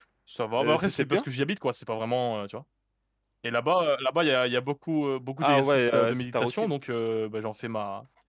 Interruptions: present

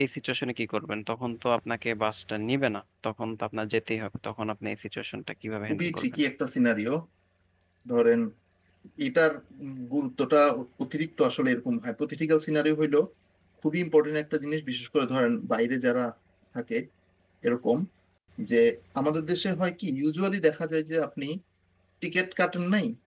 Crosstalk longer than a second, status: none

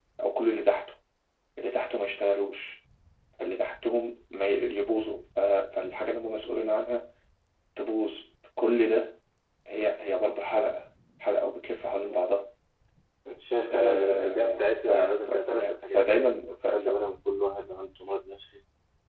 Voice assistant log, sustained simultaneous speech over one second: present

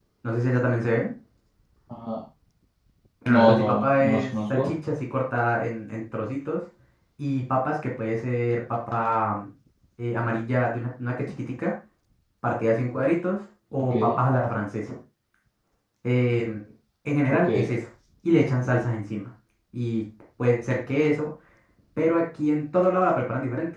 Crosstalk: present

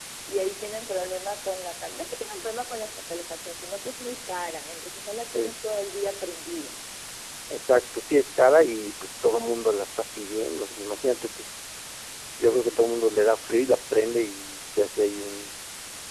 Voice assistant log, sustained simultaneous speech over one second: none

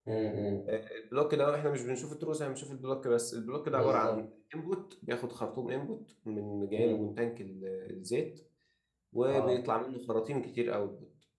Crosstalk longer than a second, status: none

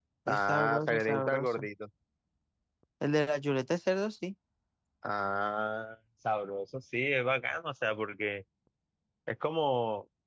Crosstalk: present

